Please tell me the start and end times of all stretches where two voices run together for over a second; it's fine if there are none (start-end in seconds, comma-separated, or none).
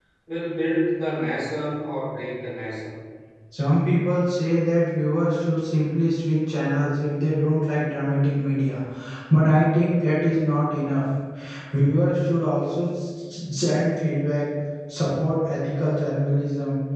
none